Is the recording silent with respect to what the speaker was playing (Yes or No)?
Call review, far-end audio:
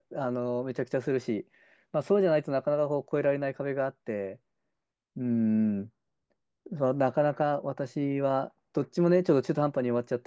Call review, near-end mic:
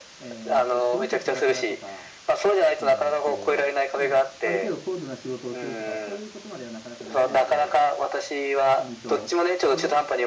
No